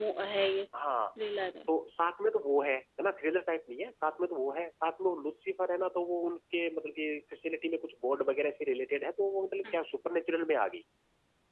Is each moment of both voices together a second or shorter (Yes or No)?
Yes